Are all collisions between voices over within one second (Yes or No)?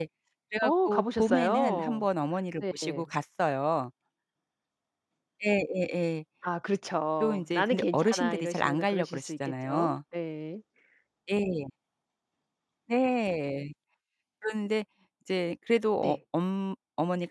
No